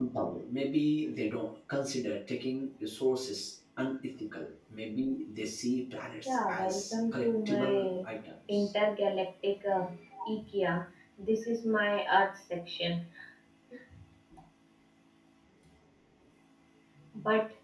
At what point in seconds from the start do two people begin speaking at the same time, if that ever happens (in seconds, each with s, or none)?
6.2 s